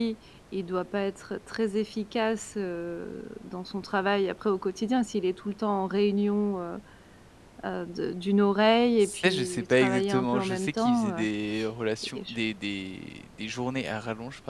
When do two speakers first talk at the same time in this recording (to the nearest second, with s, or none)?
9 s